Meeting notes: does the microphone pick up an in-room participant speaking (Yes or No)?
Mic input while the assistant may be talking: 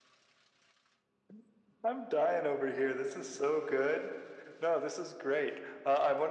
No